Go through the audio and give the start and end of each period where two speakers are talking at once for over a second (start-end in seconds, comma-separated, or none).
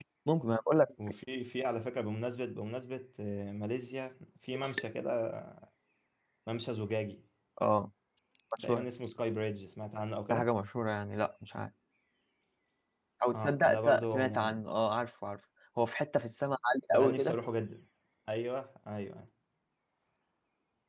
13.3-14.6